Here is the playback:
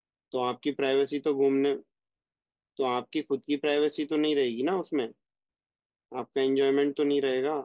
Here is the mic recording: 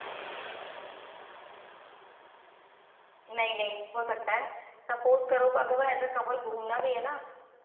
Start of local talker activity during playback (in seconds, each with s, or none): 3.4 s